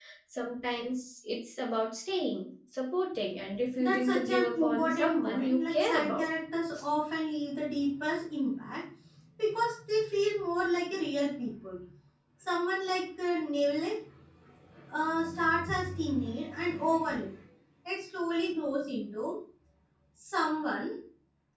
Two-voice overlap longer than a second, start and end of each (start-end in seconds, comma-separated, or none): 3.8-6.2